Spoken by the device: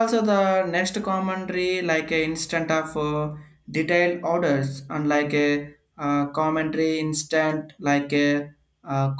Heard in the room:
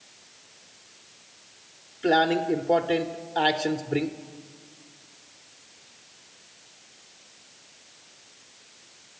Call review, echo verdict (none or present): none